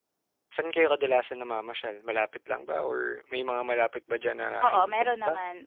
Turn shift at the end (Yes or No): Yes